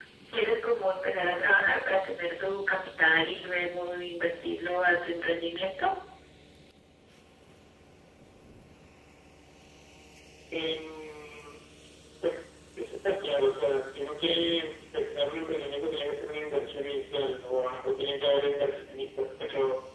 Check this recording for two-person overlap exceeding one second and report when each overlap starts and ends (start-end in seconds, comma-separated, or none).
none